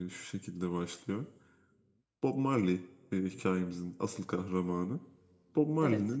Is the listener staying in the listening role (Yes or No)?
Yes